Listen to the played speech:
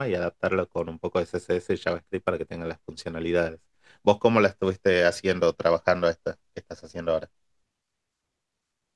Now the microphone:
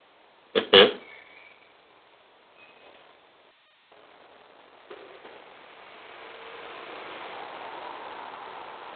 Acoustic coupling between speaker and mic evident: No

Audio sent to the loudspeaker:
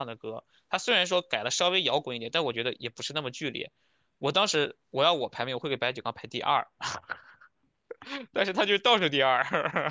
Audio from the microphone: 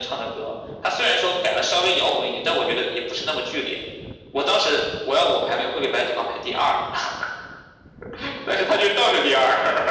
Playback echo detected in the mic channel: Yes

